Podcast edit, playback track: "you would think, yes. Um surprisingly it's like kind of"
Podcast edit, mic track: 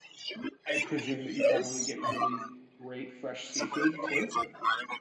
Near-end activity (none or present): present